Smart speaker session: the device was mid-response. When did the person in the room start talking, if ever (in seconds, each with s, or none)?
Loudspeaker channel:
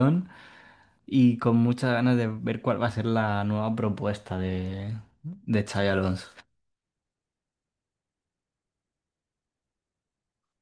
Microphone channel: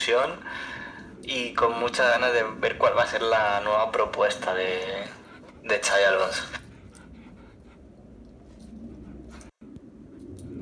none